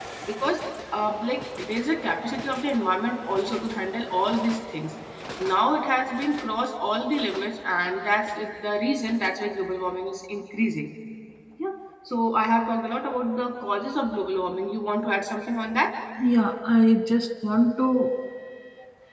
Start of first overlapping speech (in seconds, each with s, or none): none